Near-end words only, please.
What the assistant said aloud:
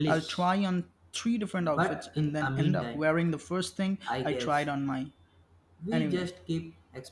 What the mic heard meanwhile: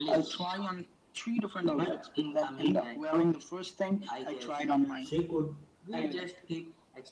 She could

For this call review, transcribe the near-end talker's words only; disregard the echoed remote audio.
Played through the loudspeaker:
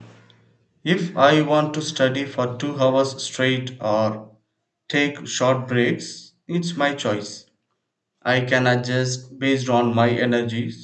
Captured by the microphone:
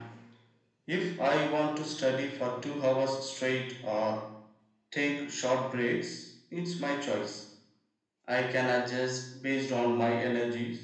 none

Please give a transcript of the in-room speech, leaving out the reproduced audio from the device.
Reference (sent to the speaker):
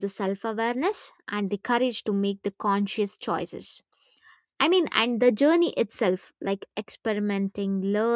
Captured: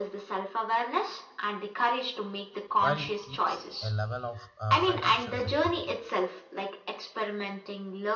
while it keeps a level of uh, financial security

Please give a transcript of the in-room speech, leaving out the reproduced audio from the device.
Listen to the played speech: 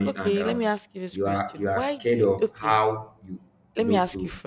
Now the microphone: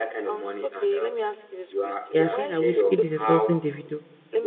you're saying that Whiskey is insulting Davido,

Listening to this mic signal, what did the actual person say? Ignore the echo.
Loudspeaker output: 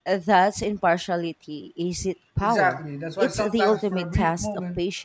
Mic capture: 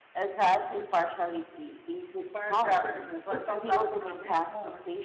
science experiment

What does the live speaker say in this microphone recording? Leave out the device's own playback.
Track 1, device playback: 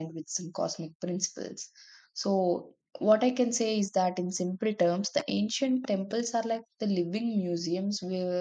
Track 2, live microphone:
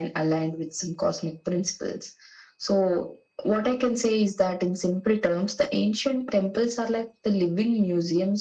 none

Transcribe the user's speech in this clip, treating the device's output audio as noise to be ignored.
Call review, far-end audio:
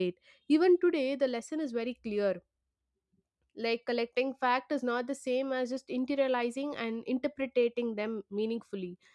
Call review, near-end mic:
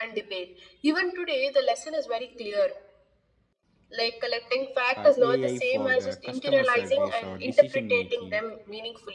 uh, AI for the customer service or decision making,

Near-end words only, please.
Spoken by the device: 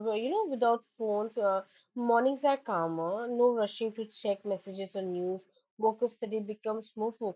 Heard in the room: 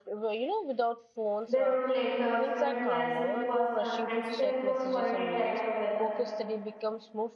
they wrote letters made plans in person and spent more quality time together

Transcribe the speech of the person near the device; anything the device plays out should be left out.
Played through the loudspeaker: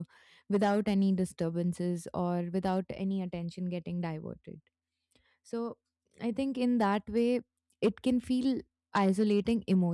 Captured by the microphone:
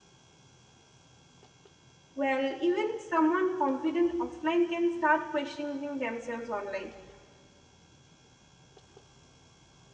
Well, even someone confident offline can start questioning themselves online.

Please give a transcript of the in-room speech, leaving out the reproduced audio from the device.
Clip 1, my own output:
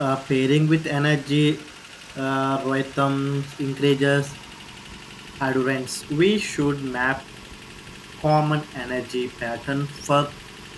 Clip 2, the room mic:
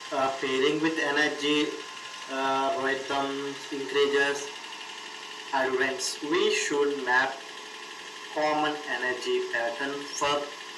none

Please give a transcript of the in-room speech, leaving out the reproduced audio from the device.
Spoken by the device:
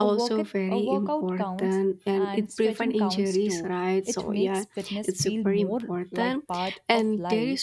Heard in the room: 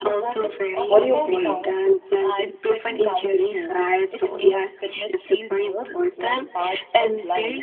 What do you feel?

